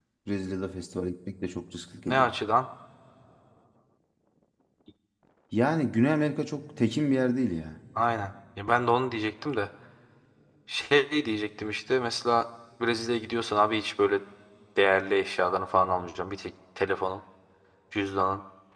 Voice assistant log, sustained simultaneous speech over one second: none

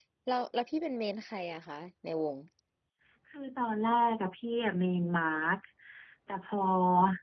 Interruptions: none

